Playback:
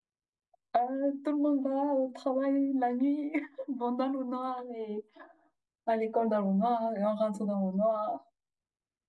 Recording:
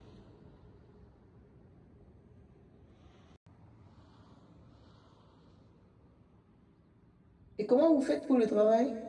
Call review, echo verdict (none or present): none